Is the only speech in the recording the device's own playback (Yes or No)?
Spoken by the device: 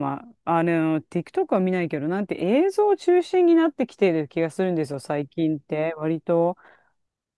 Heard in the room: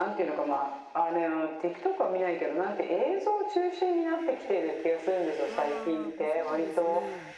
No